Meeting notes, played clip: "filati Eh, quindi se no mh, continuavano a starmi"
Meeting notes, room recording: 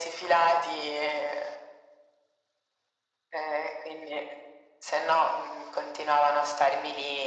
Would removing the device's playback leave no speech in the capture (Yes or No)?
Yes